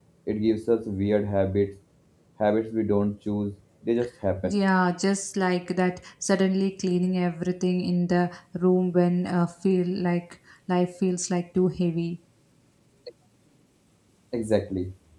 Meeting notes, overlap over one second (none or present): none